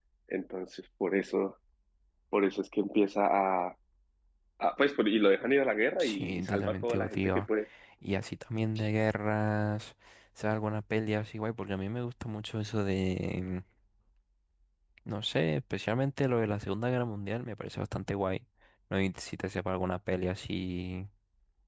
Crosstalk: present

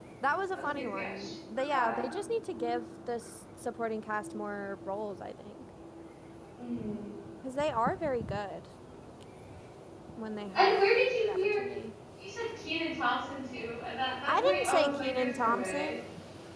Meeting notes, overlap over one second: present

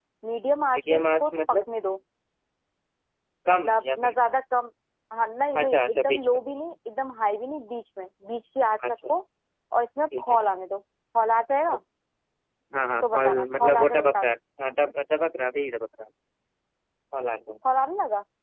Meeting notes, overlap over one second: present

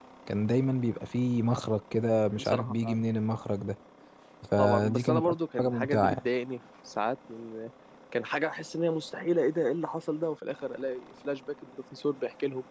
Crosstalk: present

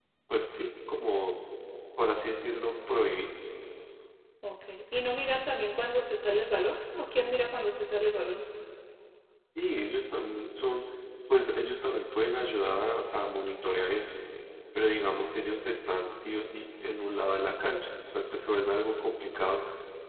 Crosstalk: none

